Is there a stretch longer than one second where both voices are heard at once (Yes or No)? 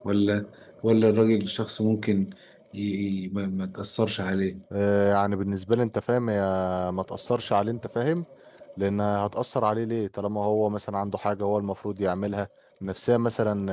No